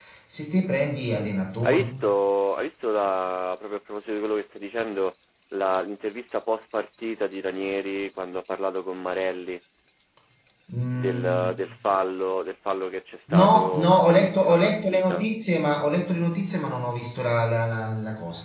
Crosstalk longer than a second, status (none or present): present